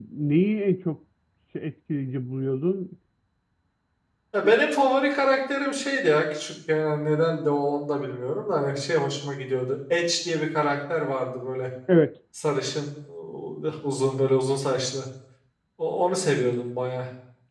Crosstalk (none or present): none